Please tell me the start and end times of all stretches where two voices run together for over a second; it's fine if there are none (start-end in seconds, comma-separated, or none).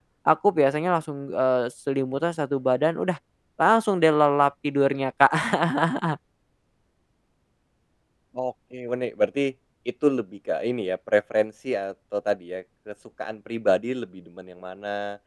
none